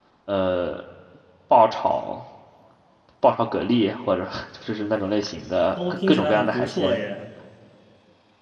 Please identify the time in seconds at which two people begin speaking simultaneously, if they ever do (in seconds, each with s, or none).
5.8 s